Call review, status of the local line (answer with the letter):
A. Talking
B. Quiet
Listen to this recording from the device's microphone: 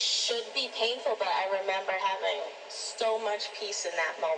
B